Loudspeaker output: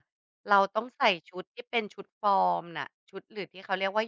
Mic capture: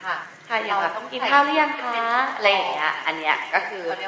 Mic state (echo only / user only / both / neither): both